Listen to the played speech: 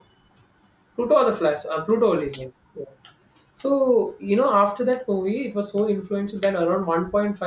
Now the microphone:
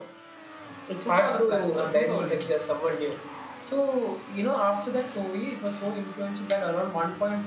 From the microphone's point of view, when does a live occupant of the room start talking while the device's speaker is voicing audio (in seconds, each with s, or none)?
0.9 s